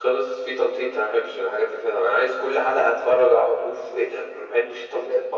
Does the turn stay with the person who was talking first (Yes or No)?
No